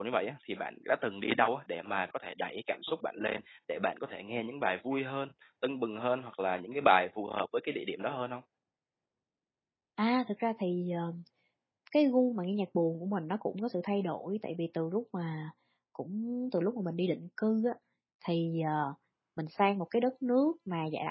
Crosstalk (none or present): none